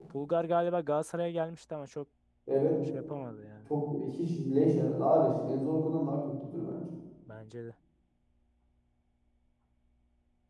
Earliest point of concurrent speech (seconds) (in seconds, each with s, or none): none